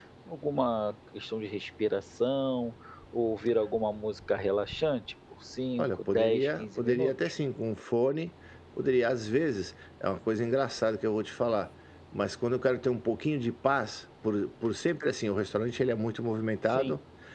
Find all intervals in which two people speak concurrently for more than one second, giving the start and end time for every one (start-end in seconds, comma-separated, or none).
5.8-7.1